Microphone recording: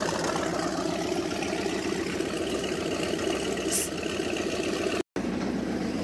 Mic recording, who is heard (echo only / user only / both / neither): neither